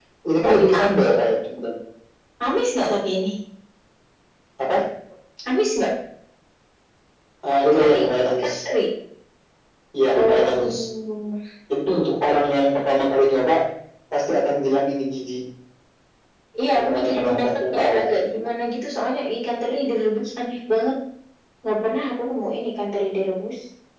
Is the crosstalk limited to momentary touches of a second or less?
No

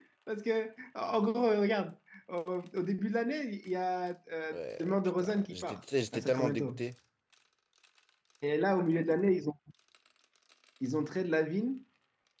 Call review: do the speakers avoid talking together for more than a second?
No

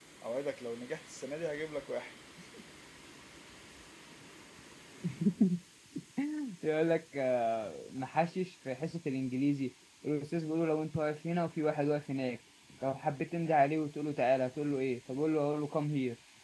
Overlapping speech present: No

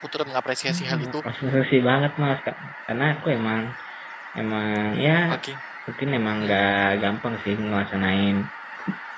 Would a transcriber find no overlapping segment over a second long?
Yes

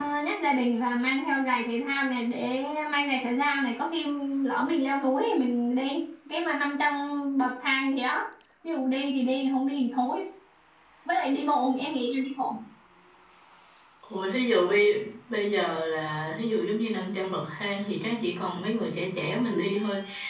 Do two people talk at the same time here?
No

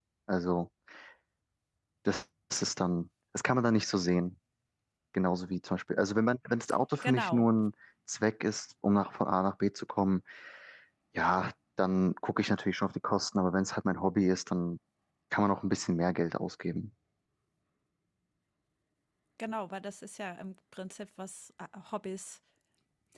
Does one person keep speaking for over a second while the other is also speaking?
No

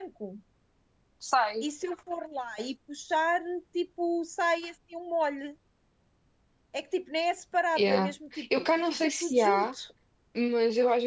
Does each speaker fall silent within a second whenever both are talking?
No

